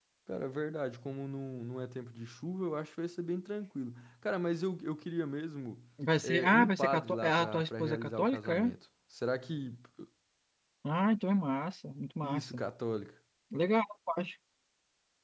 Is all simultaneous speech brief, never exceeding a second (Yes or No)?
No